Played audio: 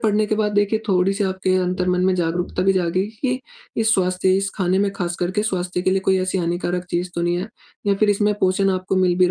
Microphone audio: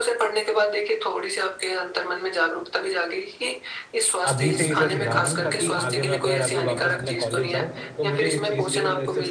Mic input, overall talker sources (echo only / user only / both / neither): both